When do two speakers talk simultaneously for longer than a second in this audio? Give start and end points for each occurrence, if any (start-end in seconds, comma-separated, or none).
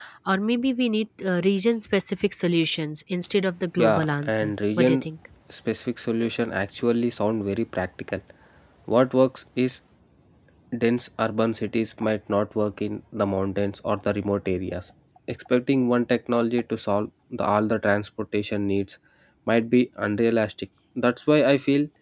3.8-5.0